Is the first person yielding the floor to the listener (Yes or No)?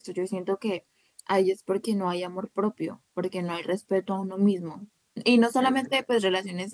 No